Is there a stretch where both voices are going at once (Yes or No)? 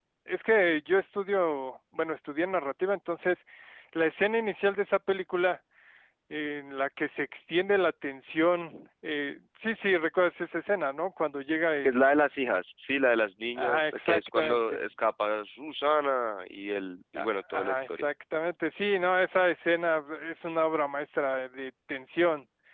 Yes